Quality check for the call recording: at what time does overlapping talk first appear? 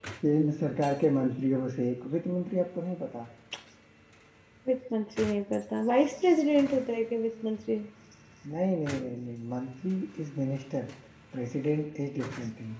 none

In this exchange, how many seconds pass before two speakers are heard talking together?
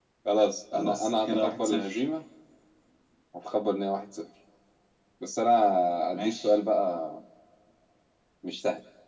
1 s

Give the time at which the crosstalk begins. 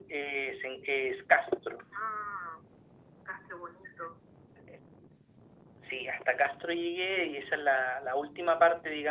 none

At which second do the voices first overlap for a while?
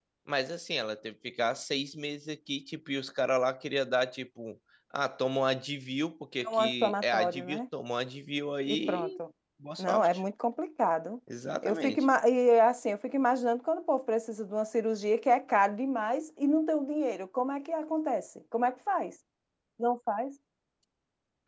6 s

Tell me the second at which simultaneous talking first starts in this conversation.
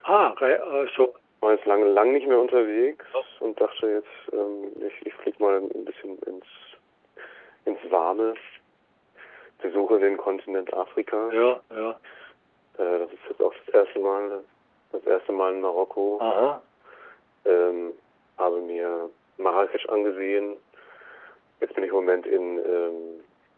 none

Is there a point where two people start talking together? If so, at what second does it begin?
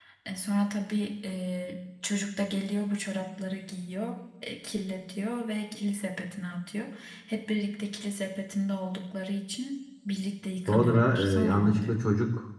11 s

